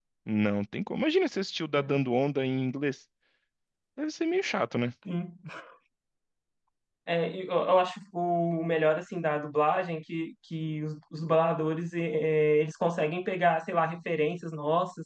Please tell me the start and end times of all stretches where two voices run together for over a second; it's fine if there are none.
none

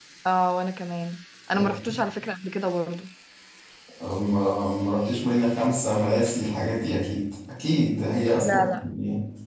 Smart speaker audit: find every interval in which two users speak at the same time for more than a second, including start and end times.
none

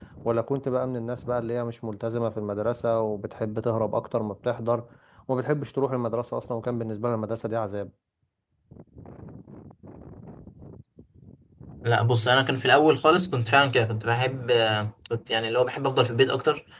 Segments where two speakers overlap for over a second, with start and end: none

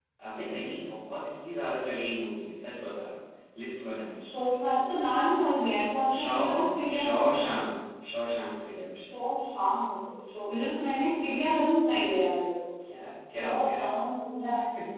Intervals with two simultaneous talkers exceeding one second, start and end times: none

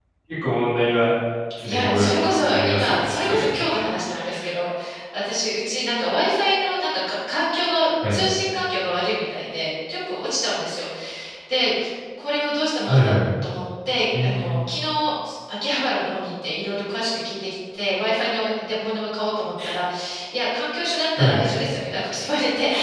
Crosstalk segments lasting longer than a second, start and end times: 1.6-3.8

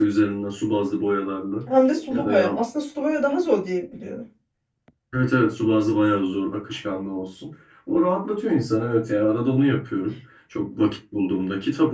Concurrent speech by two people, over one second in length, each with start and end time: none

